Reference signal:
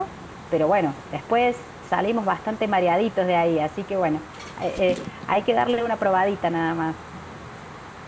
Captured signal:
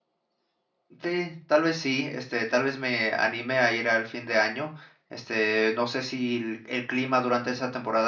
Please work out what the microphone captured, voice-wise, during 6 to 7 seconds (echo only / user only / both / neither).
user only